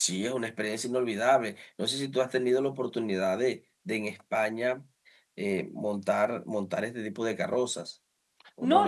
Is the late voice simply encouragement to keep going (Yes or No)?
No